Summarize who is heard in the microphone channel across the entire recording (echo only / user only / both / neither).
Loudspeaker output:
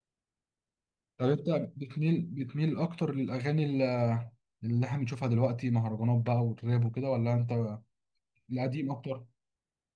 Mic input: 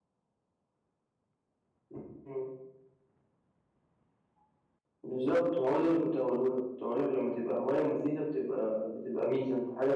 user only